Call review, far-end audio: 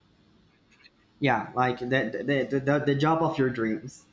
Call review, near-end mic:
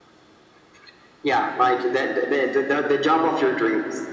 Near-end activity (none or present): none